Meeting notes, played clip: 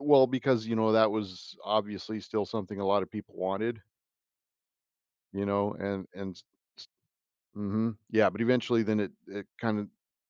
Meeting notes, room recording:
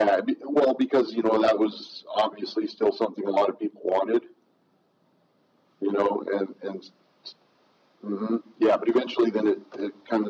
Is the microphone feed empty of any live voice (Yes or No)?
Yes